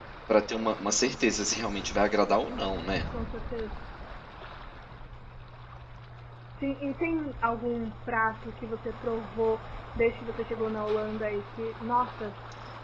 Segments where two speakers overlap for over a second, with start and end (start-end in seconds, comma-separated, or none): none